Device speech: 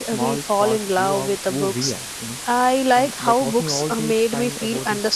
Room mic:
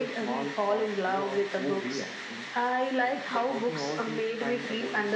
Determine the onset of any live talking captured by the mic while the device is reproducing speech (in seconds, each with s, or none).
none